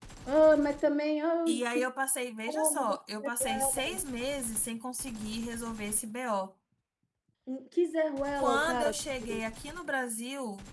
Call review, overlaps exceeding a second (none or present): present